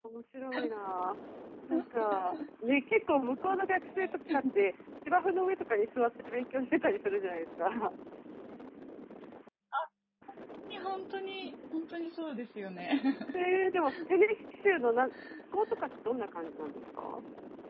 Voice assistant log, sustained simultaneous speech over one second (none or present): none